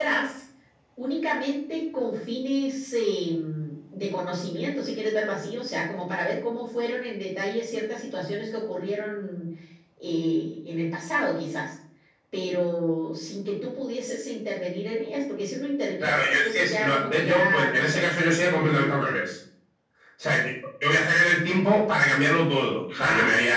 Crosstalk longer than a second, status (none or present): present